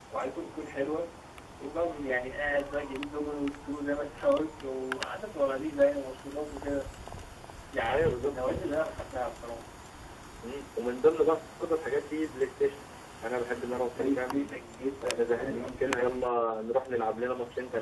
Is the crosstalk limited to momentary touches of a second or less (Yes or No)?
No